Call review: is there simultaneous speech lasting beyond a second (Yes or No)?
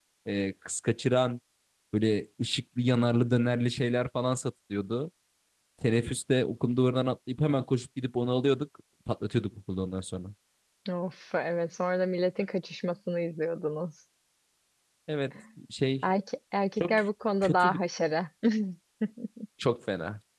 No